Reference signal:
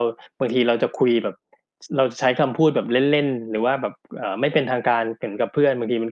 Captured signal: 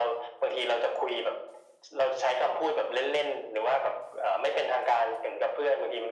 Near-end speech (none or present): none